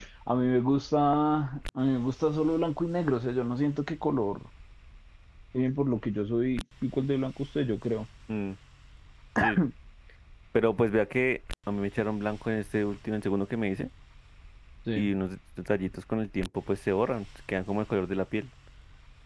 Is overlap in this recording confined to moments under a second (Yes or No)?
Yes